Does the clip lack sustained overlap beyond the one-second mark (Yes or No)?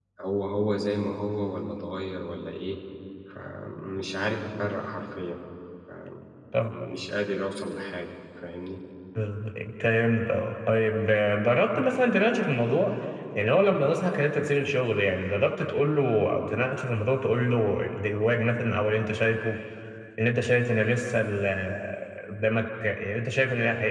Yes